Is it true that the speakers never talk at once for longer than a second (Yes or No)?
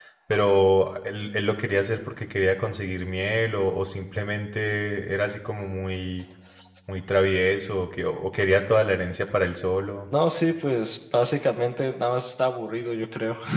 Yes